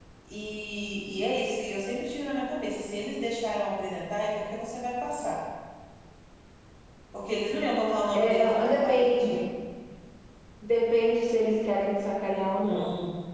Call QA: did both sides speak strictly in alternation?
No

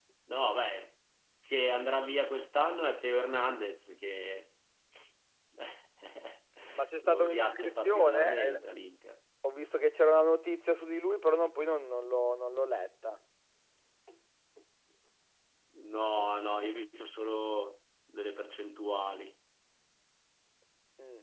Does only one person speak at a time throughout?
No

